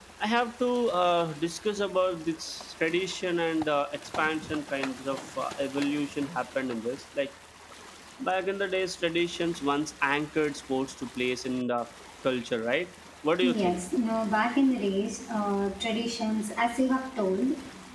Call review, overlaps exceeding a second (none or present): none